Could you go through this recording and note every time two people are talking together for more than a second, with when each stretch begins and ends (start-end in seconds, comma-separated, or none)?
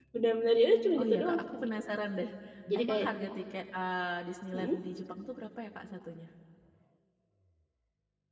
none